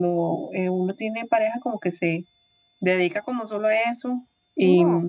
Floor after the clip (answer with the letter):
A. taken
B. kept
B